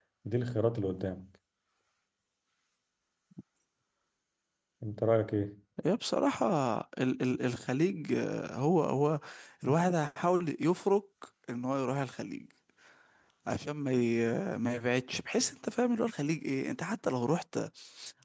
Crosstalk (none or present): none